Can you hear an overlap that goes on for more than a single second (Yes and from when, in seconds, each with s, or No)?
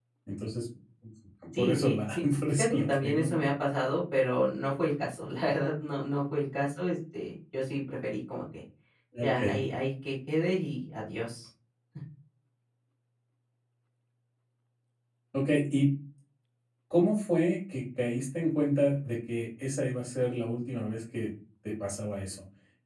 Yes, from 1.6 s